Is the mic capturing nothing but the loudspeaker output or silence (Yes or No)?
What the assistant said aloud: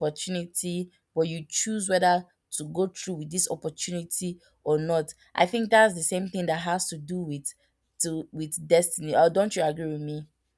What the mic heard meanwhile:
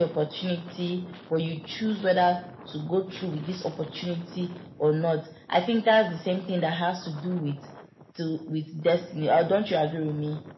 Yes